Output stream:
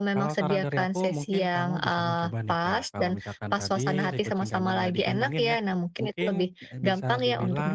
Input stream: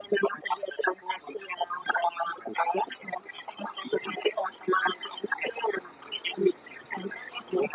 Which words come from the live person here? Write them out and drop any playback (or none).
none